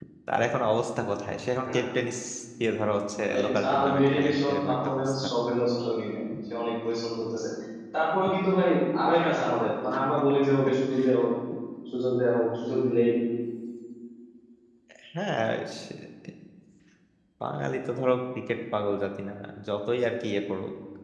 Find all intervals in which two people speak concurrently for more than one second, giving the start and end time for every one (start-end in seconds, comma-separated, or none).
3.3-5.2